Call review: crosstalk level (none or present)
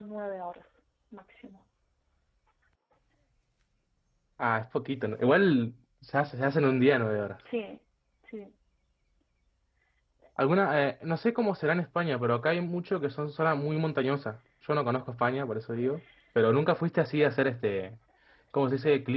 none